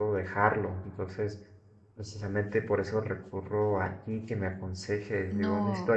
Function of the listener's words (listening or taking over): taking over